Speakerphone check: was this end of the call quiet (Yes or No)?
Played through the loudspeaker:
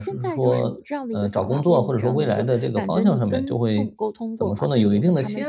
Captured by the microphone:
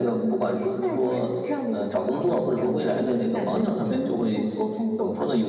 No